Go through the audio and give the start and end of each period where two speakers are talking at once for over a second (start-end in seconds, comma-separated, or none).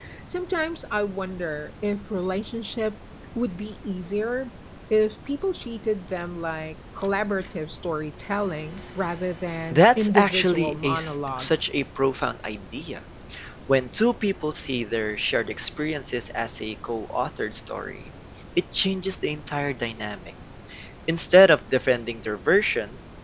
9.7-11.7